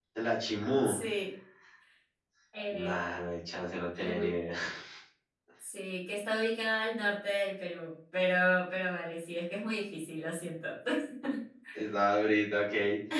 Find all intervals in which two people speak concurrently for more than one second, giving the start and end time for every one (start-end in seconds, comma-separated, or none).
none